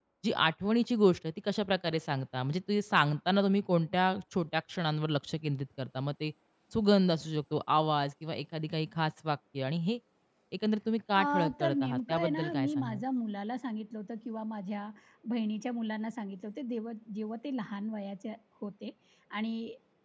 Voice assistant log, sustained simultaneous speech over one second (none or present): present